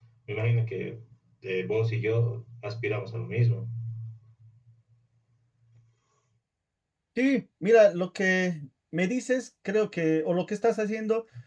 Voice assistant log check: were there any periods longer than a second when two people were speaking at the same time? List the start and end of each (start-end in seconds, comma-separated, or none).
none